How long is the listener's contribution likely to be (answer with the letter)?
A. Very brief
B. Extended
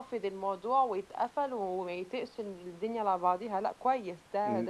B